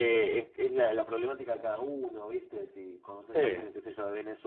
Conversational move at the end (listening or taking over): listening